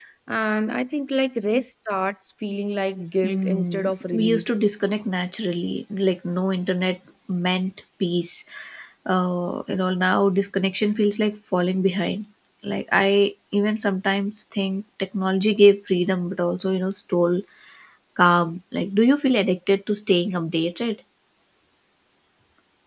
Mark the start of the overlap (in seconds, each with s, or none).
3.2 s